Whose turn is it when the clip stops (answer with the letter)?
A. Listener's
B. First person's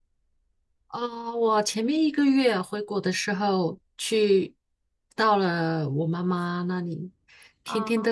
B